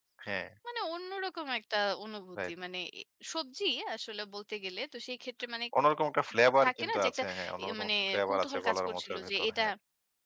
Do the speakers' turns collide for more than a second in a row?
Yes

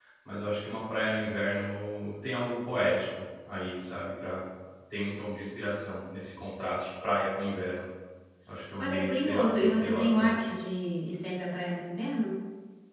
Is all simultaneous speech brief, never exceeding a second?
No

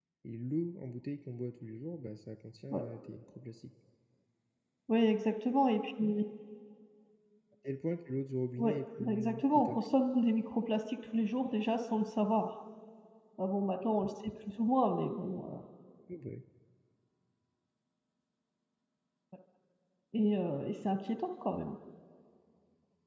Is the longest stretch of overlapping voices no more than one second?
No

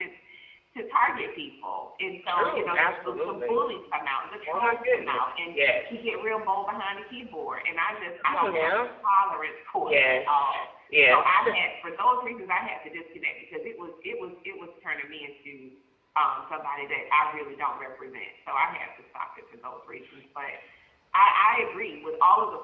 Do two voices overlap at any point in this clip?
Yes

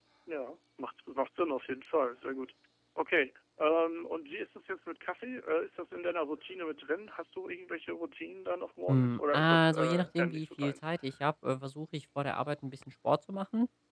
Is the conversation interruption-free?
No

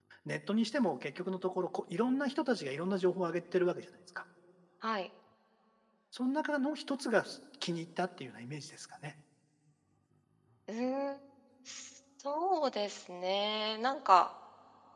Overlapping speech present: No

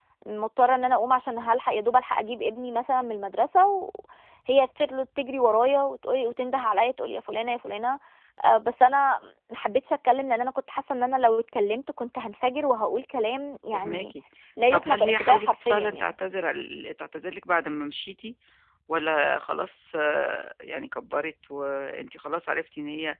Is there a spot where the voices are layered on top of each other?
Yes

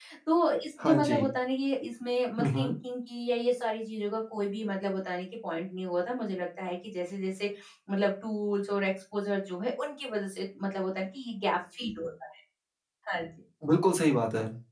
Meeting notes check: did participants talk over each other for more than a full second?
No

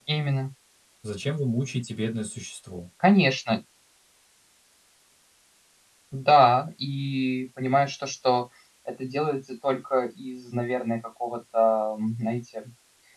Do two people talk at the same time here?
No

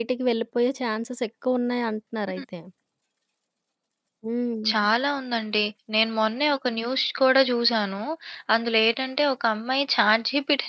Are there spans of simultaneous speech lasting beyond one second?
No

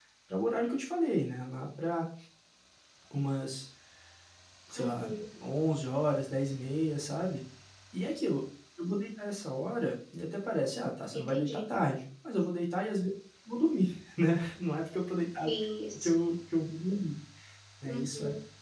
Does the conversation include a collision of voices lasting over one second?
No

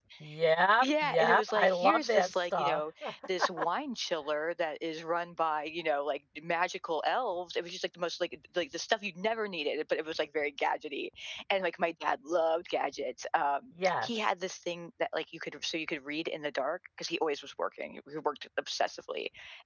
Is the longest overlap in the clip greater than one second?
Yes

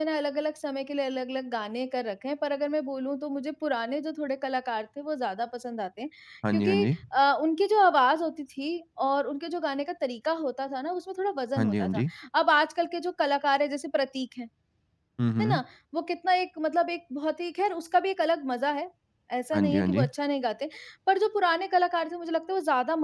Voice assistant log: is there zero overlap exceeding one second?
Yes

